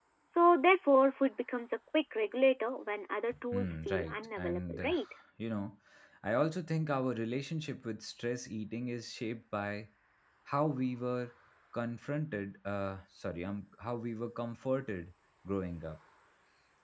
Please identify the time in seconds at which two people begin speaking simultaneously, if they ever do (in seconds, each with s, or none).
3.5 s